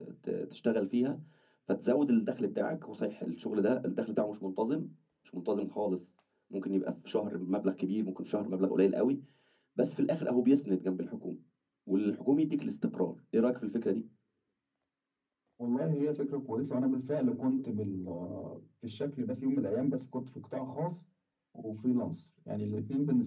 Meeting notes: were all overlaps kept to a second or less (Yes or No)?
Yes